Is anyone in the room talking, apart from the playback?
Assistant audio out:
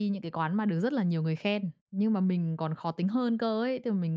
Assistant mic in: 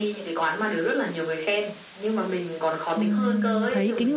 Yes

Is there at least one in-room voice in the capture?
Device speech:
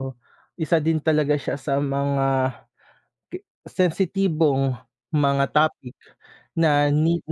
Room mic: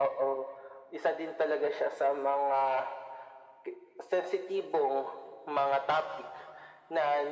No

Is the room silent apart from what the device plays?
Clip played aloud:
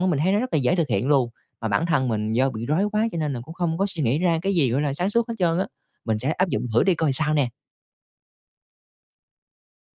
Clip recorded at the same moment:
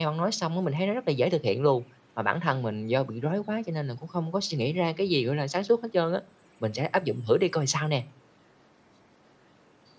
Yes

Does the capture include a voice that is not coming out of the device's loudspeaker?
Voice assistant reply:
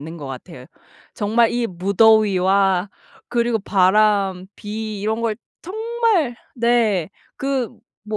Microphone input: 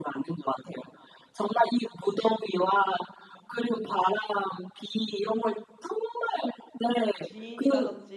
Yes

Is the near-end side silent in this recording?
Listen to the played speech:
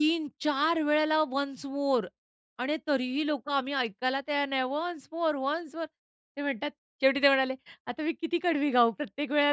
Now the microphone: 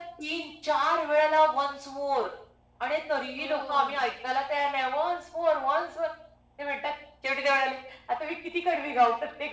No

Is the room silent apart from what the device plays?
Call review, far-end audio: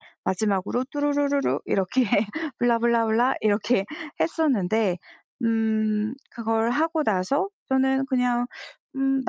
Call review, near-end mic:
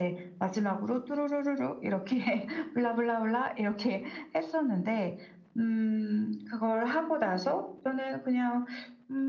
Yes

